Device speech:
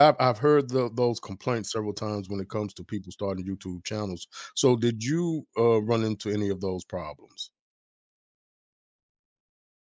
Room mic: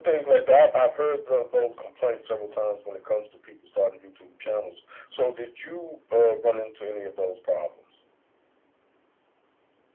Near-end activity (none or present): none